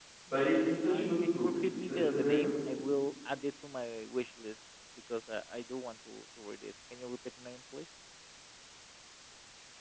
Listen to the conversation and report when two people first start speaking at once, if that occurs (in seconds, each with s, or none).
0.9 s